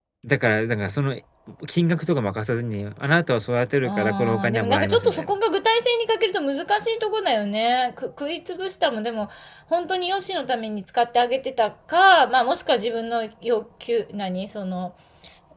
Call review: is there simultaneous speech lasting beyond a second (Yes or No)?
Yes